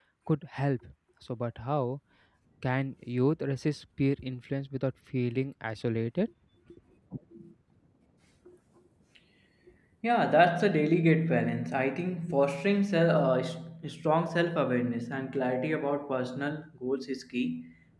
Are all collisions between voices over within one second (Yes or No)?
Yes